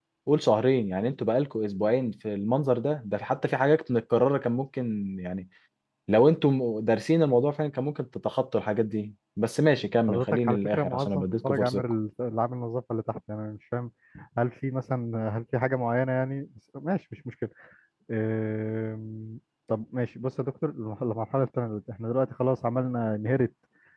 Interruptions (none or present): present